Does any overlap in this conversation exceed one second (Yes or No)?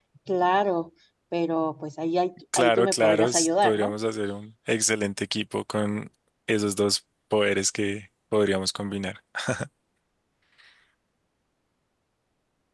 Yes